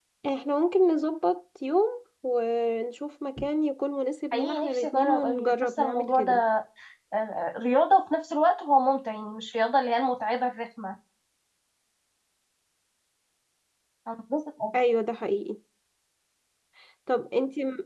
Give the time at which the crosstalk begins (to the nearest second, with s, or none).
4 s